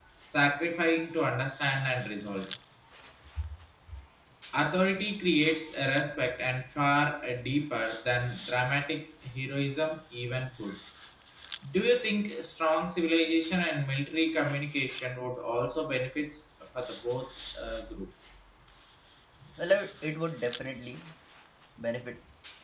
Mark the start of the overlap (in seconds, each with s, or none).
none